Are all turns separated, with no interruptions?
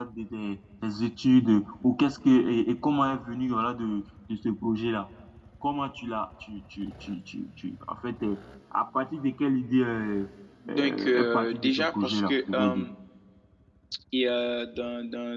No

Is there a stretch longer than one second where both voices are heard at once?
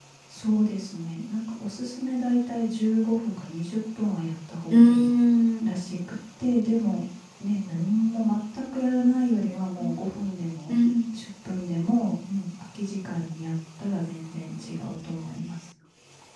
No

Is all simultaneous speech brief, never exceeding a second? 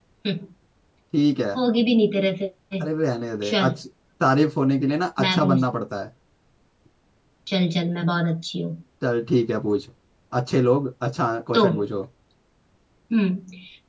Yes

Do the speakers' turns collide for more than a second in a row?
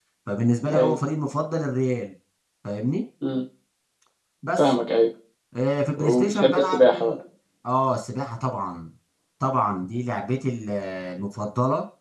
Yes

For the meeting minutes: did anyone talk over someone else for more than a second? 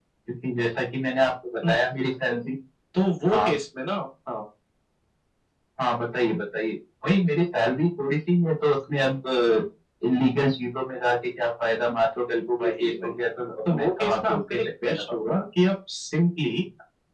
Yes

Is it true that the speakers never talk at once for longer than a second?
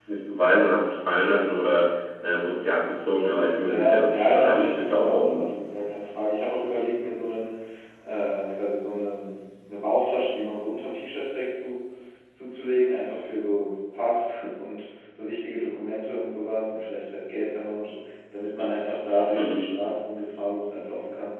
No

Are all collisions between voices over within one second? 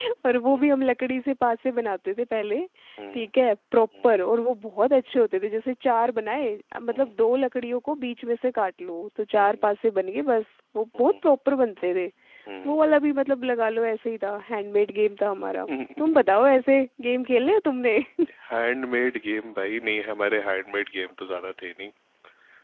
Yes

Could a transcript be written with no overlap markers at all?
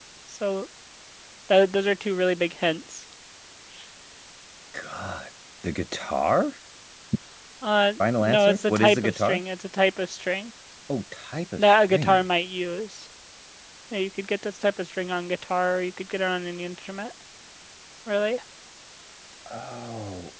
No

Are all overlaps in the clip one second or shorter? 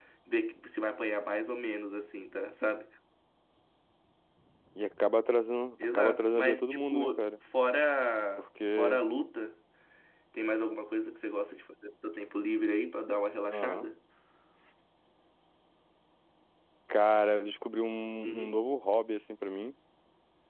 No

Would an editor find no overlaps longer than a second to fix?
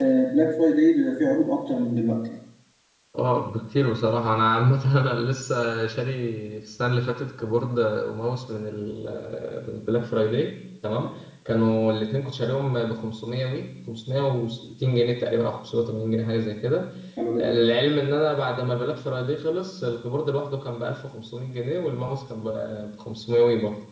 Yes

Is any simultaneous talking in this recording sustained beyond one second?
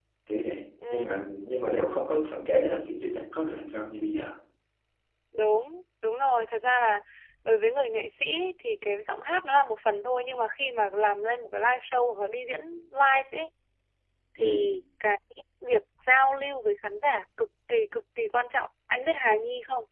No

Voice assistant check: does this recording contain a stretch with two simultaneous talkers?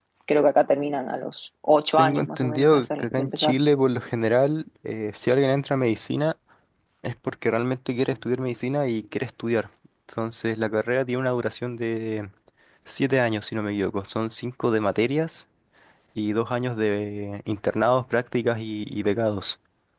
Yes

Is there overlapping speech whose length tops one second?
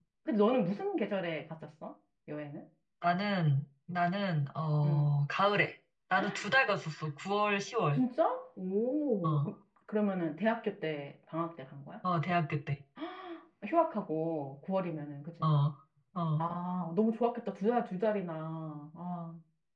No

